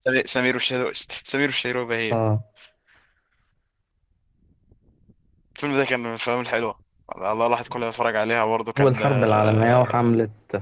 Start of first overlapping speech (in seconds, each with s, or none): 8.8 s